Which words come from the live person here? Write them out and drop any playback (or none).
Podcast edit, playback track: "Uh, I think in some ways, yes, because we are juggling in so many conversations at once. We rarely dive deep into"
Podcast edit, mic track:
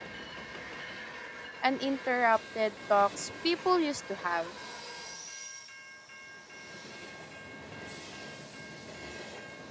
uninterrupted talks people used to have.